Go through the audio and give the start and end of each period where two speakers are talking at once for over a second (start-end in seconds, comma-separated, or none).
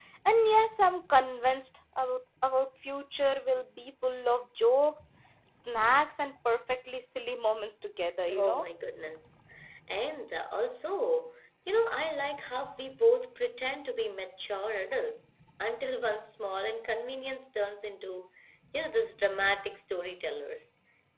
none